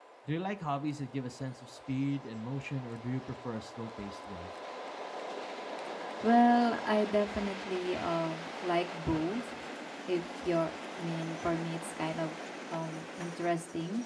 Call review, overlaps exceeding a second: none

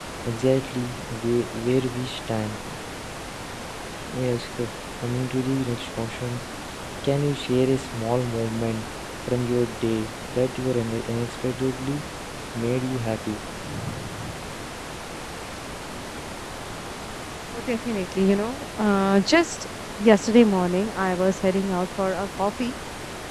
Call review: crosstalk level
none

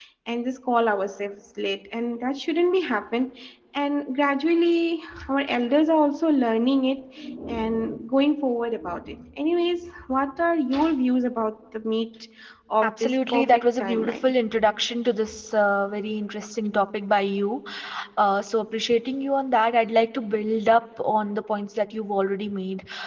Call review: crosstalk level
present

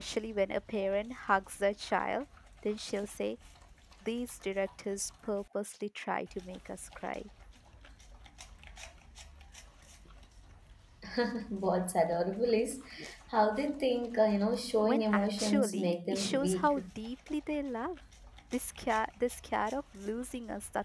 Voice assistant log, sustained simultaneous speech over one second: present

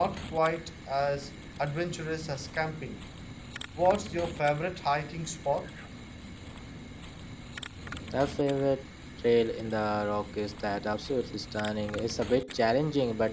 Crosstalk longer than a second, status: none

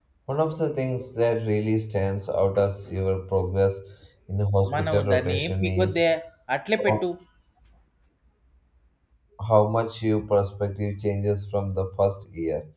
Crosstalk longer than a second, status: present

